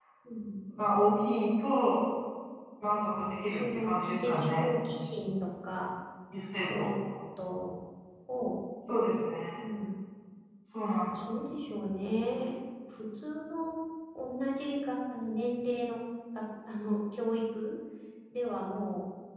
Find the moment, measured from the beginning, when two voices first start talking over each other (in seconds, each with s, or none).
2.9 s